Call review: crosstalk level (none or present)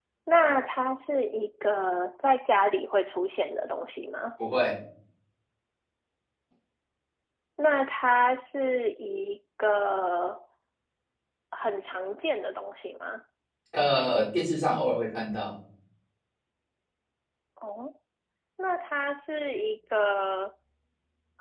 none